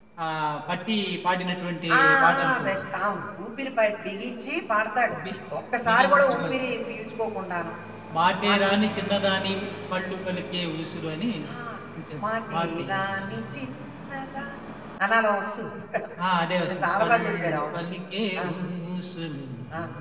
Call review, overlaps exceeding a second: present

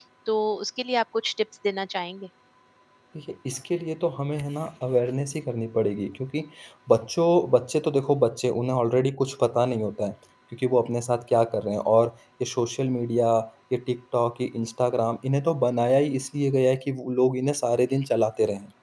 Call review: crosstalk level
none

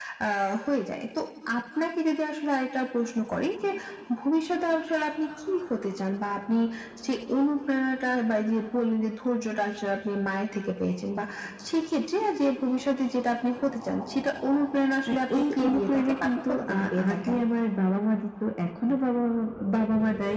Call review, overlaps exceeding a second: present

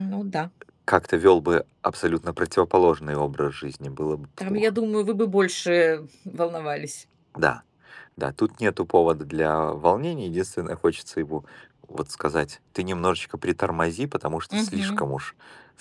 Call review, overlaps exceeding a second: none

